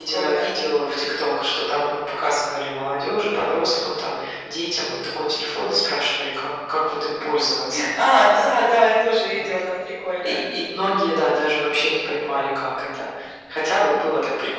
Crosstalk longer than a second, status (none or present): none